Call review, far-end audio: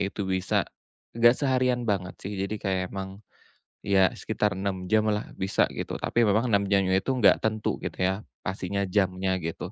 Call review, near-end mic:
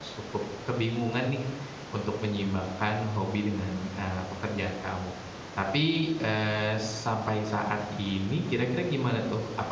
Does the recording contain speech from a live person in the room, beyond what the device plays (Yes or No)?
Yes